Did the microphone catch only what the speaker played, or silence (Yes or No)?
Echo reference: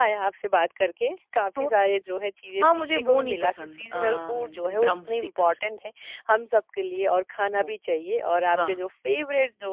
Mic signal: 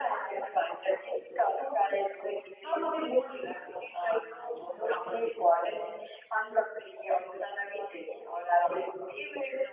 Yes